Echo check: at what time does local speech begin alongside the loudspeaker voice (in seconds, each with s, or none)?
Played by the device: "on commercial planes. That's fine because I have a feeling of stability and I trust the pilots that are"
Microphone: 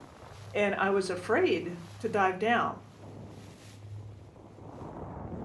0.5 s